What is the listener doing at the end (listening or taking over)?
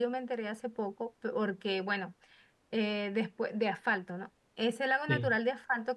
listening